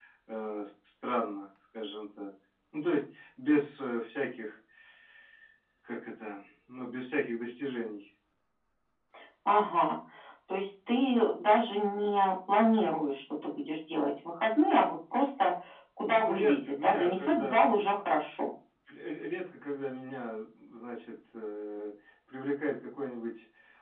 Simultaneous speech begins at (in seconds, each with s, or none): 16.0 s